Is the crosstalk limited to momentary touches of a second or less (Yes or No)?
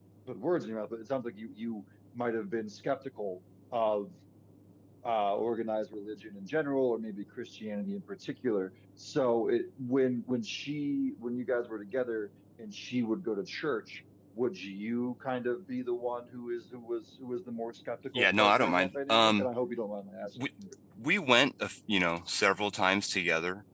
No